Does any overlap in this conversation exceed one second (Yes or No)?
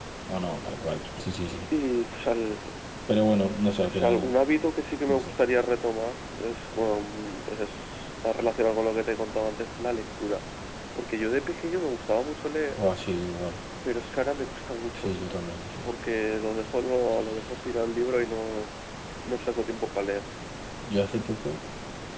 No